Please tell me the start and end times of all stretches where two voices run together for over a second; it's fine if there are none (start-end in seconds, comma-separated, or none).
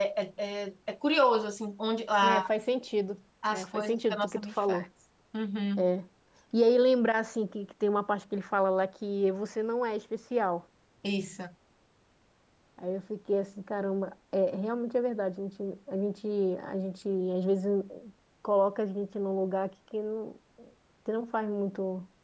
3.5-4.8